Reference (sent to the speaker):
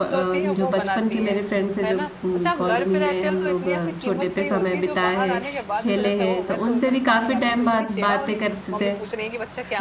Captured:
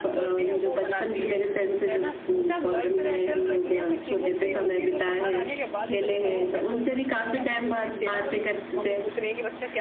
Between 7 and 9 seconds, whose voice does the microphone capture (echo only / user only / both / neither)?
echo only